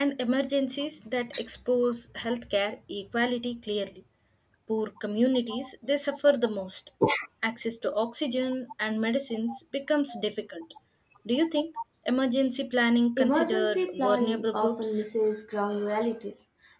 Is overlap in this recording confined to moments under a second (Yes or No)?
No